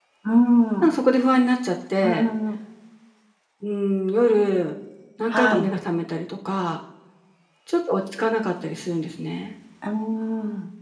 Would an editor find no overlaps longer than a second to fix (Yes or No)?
Yes